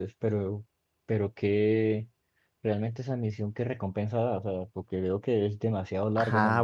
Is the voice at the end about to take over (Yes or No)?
Yes